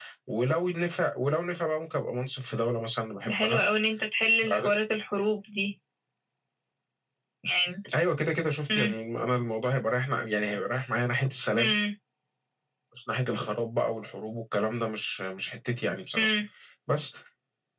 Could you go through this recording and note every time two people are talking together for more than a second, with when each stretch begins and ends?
none

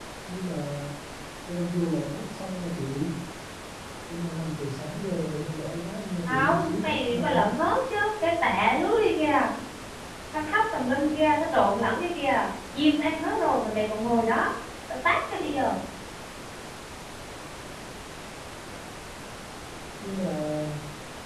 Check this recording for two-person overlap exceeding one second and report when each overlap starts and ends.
6.3-7.5

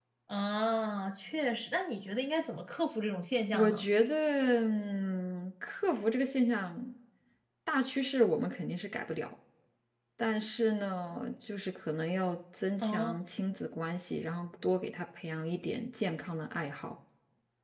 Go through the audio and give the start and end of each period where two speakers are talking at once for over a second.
none

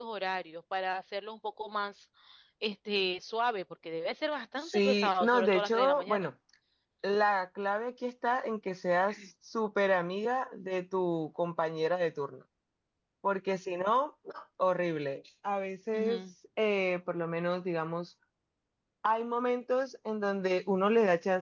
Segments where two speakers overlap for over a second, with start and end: 4.6-6.3

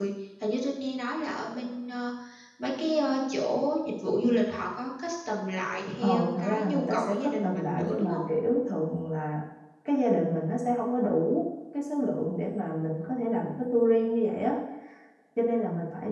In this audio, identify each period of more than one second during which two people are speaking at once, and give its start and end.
6.0-8.2

